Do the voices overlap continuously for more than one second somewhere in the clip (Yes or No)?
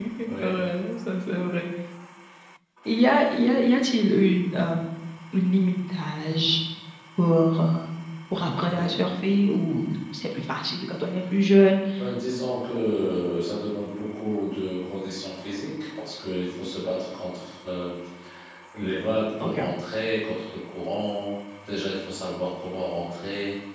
No